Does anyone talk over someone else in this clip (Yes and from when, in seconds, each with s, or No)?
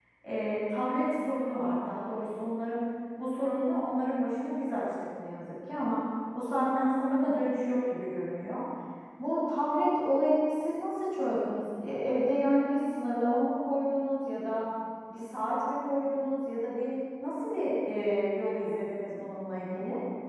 No